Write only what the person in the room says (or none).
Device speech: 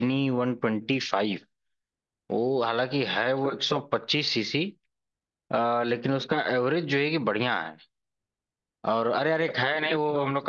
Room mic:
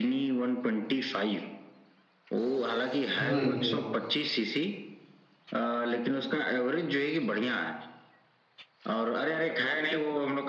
हम्म हम्म,